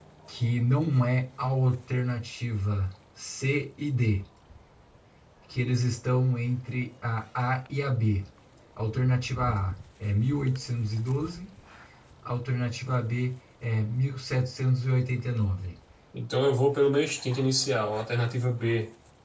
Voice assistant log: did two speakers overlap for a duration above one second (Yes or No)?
No